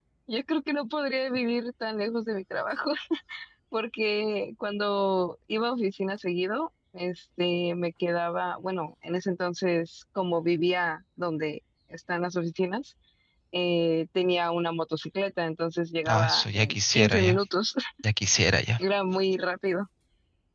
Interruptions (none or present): present